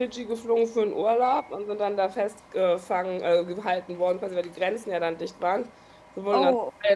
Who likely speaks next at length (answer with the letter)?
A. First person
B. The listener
A